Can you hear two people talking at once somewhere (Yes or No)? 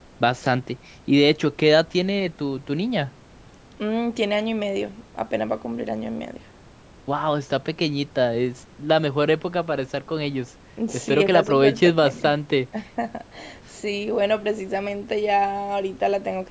Yes